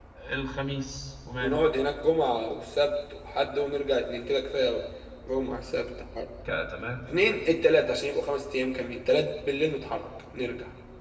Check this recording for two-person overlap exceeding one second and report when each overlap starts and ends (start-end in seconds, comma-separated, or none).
none